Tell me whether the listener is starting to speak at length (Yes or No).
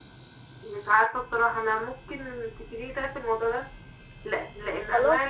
No